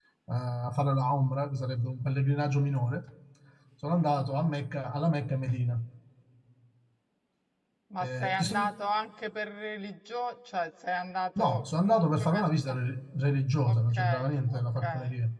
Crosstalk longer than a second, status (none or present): present